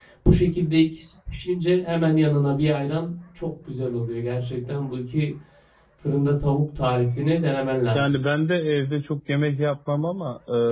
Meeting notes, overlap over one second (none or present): none